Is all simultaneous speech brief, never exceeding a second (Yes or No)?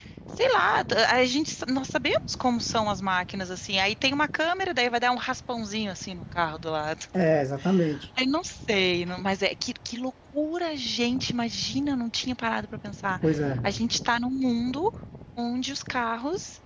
Yes